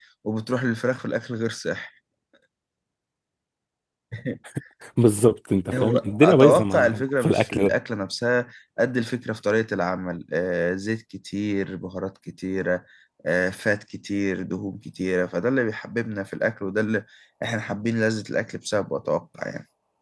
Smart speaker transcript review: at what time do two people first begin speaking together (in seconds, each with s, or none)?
5.7 s